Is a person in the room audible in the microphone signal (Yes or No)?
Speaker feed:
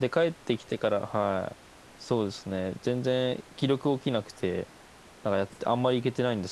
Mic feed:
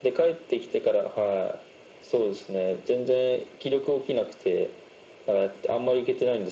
No